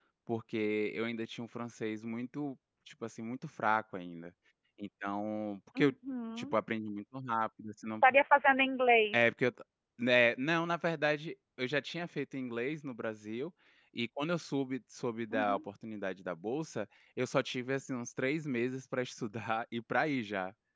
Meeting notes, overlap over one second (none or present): none